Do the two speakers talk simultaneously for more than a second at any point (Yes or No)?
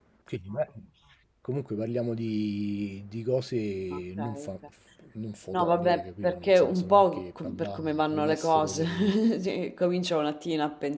Yes